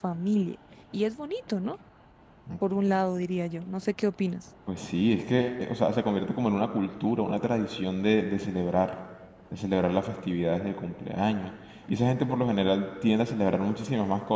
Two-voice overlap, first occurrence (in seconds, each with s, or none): none